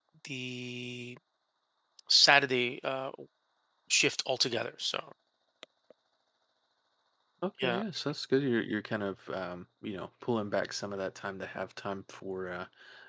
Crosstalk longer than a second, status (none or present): none